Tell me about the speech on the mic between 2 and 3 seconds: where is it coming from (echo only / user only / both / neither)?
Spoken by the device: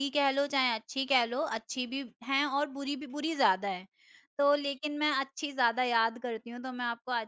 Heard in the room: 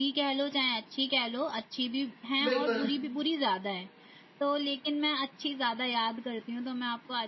both